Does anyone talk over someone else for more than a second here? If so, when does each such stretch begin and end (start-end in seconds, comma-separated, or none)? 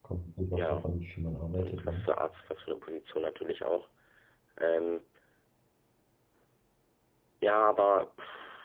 none